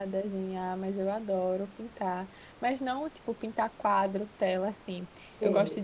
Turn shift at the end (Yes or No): No